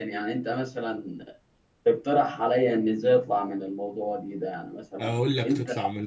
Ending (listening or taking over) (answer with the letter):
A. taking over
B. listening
A